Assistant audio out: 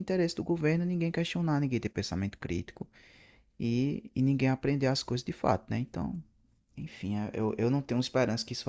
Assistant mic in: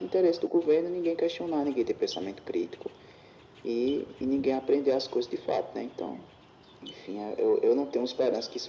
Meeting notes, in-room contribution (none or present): none